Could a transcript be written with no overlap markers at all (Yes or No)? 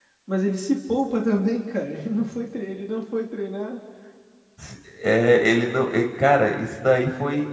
Yes